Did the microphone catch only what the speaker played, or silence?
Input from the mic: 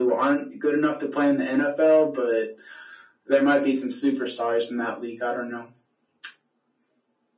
Yes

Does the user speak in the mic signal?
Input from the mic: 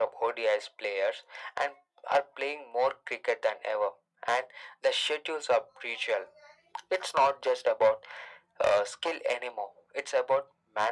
No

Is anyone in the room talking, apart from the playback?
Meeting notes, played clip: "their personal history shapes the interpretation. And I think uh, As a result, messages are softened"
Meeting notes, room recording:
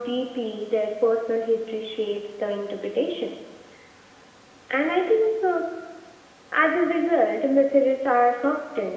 No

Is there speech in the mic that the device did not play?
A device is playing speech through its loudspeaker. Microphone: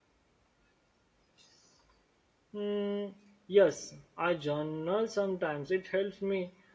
Yes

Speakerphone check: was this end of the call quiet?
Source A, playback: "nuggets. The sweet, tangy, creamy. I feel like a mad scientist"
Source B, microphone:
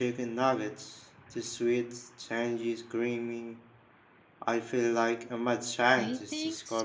No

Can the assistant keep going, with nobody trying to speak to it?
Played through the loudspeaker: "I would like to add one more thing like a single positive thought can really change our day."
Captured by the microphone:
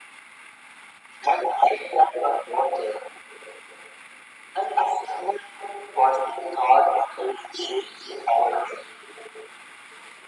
Yes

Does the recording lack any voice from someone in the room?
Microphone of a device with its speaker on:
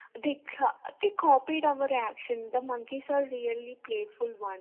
Yes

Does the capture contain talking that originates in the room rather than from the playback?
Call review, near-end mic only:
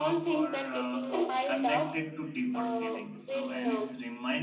Yes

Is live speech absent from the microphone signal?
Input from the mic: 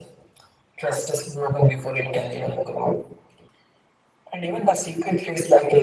Yes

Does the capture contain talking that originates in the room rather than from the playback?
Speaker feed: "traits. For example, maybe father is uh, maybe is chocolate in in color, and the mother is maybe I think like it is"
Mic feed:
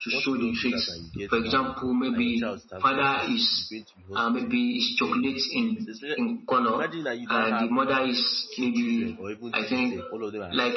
Yes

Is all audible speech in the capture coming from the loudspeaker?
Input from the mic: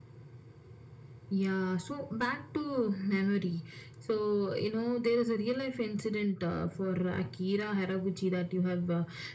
Yes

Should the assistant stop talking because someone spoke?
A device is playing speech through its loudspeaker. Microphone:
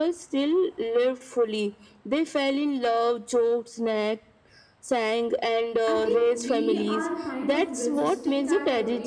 Yes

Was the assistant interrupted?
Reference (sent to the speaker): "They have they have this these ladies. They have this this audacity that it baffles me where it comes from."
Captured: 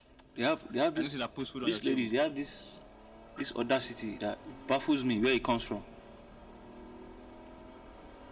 Yes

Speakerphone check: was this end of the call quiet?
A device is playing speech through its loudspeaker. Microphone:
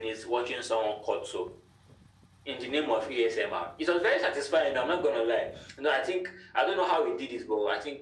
Yes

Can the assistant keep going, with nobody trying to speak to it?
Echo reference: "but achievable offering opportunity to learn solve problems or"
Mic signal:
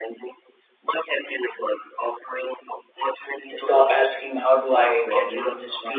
No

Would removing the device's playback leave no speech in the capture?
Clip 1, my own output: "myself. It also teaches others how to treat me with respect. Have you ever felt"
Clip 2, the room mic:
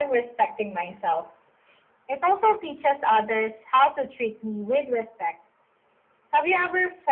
Yes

